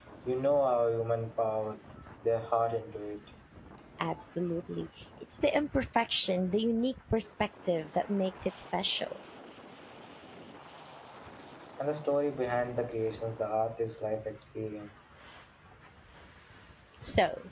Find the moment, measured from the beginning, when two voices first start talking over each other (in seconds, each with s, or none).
none